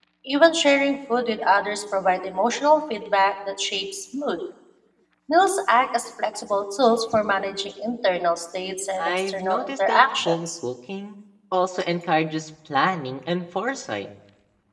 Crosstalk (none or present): present